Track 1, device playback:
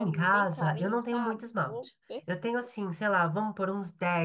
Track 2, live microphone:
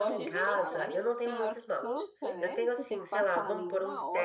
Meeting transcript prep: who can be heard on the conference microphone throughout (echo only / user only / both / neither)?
both